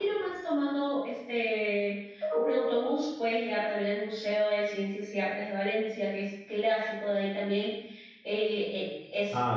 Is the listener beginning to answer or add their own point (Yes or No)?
Yes